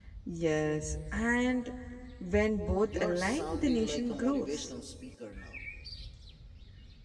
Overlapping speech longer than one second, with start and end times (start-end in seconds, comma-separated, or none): 2.8-4.7